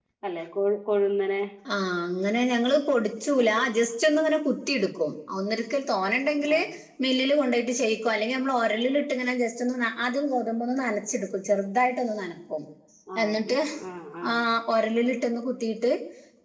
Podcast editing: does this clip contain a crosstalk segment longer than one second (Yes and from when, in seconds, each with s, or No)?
No